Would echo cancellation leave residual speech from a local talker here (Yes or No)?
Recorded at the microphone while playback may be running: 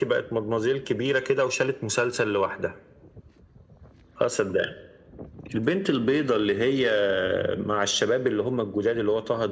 No